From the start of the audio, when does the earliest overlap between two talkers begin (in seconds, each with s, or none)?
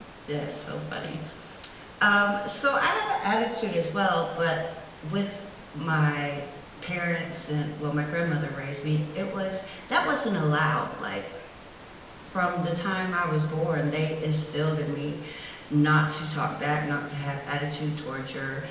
none